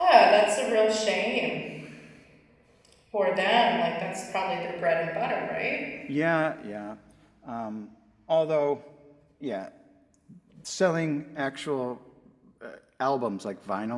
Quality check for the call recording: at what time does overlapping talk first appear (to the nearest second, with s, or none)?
none